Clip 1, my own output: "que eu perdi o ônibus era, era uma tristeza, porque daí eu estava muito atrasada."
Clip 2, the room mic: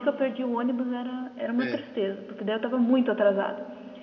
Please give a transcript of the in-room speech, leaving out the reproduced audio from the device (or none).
é. É,